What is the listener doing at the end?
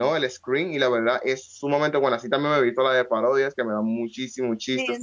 taking over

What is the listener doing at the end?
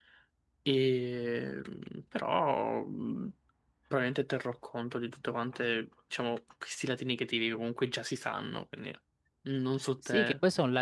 taking over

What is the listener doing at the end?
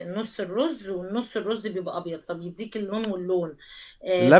listening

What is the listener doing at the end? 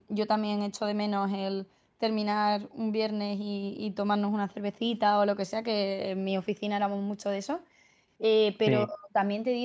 listening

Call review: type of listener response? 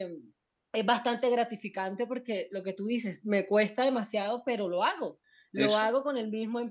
listening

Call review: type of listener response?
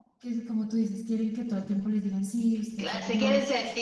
taking over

